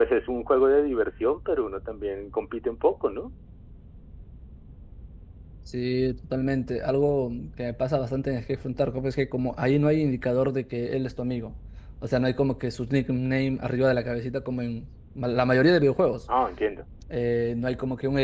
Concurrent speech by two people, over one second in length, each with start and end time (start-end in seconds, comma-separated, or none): none